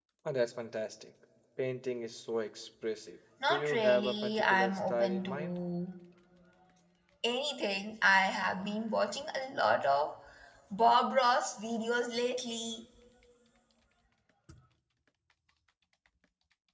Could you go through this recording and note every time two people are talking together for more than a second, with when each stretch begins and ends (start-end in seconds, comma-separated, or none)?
3.5-5.6